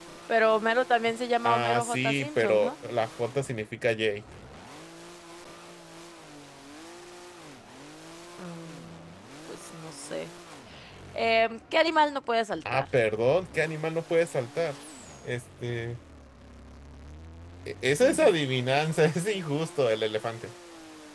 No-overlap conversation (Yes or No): No